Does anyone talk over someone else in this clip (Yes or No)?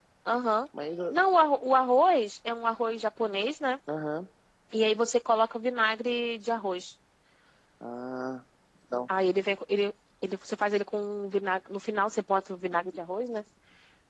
No